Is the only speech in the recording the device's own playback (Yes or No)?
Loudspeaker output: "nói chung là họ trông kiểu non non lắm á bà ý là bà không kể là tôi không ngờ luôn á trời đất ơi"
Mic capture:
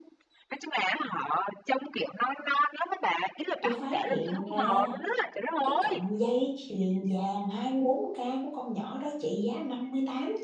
No